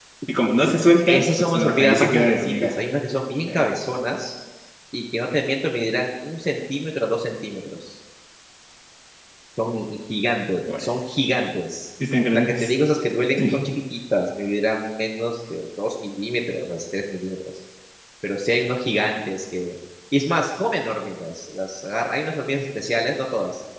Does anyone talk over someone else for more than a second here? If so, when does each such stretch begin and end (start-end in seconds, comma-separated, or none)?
1.1-2.7